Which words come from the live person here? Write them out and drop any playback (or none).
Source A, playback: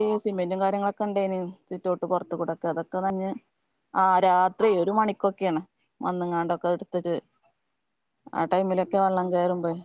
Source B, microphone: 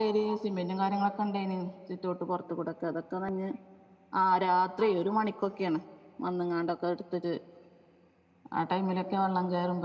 none